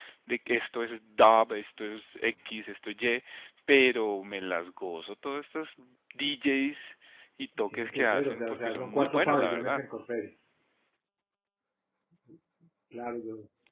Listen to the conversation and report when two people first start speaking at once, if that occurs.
7.7 s

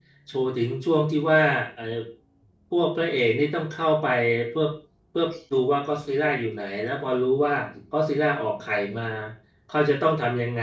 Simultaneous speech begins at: none

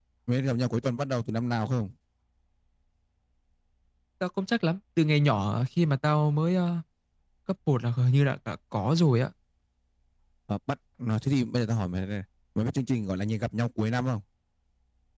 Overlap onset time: none

